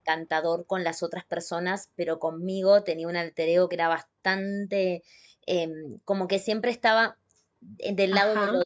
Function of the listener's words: listening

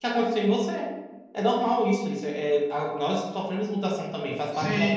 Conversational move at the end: taking over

